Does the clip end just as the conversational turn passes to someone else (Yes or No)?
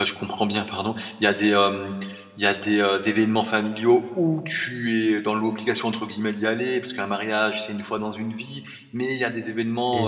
No